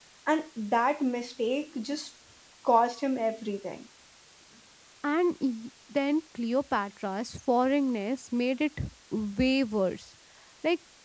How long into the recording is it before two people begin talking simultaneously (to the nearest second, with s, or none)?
none